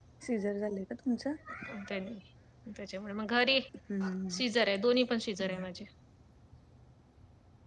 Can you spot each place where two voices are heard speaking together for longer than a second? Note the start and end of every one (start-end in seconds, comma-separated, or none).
none